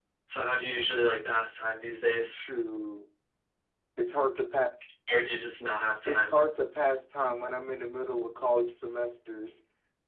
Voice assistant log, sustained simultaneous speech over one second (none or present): none